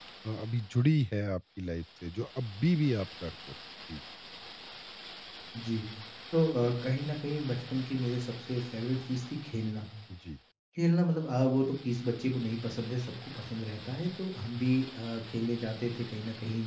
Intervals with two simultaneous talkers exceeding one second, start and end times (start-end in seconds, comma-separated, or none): none